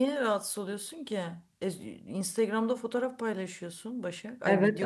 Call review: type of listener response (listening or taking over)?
taking over